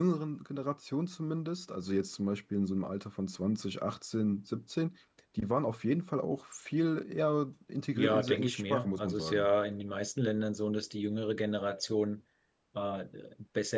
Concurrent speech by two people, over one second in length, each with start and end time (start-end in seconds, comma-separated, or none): 7.9-9.5